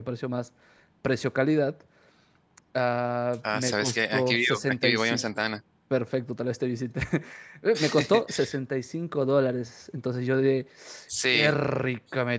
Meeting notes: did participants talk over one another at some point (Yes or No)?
Yes